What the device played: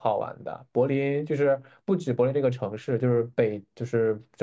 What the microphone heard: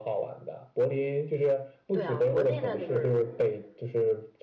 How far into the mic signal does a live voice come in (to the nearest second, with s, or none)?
2 s